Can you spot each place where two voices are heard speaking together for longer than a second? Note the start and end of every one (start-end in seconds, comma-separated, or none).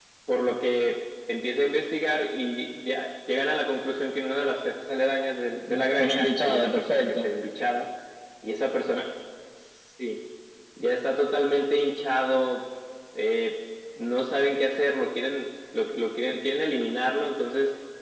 5.7-7.3